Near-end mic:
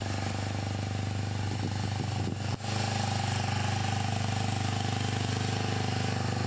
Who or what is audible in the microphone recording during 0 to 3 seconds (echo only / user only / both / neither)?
neither